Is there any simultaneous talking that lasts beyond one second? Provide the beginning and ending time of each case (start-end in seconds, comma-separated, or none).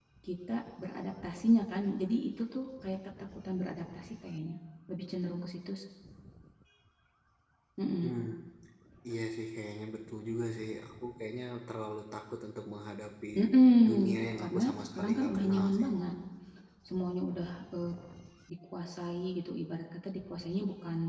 14.1-15.9